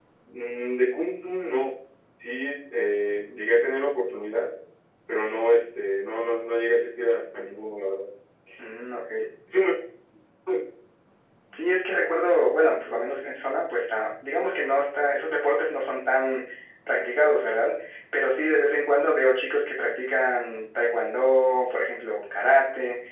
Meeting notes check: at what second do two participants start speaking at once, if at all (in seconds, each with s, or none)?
none